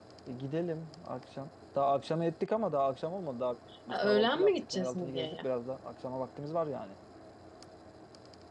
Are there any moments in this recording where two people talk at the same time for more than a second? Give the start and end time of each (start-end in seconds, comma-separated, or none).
3.9-5.5